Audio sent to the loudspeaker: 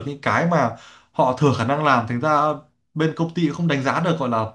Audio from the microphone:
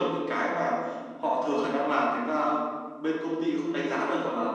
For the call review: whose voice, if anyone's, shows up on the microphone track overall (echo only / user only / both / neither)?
echo only